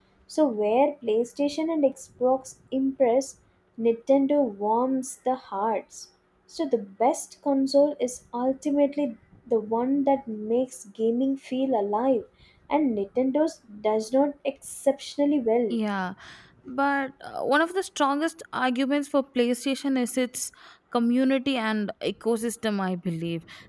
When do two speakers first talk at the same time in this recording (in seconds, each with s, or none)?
none